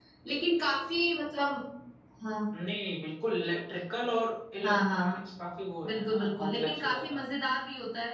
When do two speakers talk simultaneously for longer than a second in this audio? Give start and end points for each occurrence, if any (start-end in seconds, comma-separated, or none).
5.8-7.2